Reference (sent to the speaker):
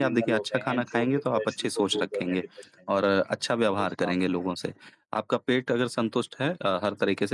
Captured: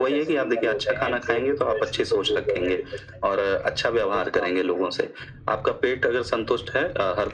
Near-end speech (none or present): none